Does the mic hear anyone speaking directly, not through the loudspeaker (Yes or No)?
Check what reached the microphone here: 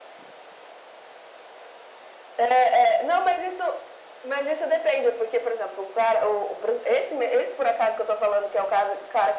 No